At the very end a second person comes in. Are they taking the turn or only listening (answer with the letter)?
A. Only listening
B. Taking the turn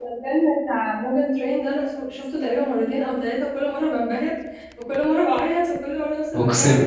B